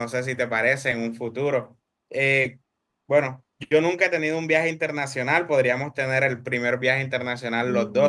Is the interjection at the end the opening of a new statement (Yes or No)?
Yes